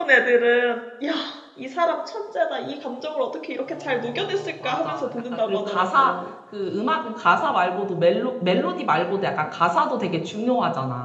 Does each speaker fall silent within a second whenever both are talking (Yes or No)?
No